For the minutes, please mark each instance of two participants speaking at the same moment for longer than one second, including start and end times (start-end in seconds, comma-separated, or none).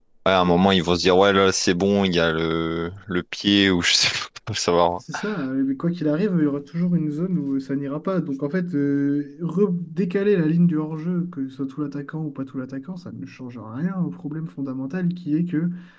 none